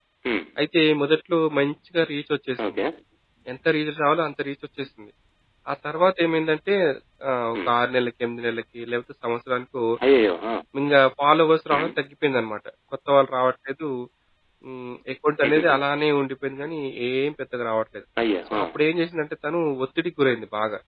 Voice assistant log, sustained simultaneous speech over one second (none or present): none